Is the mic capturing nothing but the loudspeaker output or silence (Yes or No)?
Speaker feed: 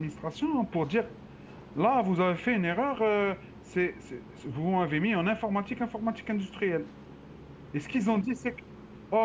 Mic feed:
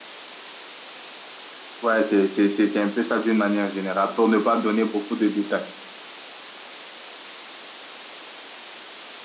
No